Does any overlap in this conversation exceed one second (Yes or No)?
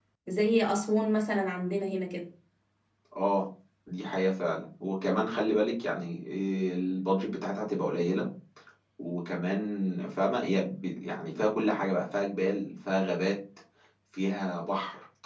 No